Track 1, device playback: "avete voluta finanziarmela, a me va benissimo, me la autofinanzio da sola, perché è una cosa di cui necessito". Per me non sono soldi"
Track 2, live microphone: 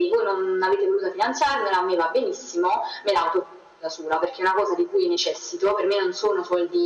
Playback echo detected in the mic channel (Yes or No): Yes